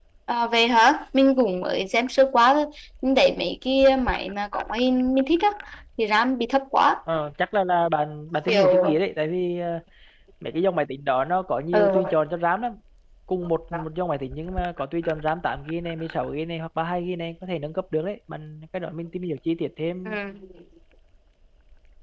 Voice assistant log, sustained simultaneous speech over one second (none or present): none